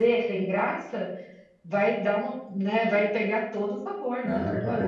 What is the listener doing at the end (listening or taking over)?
taking over